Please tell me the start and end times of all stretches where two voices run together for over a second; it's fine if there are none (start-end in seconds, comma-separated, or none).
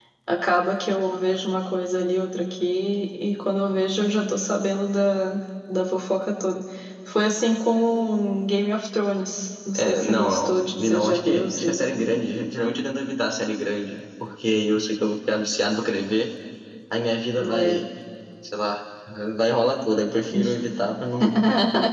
9.7-11.8